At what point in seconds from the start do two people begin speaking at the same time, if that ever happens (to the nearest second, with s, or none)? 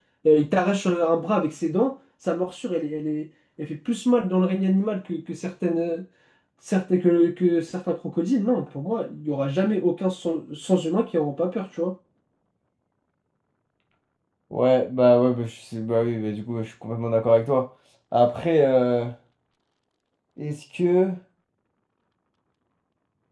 none